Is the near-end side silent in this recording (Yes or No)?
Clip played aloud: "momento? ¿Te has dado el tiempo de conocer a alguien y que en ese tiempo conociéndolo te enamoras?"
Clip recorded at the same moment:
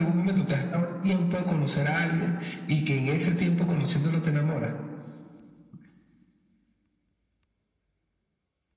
Yes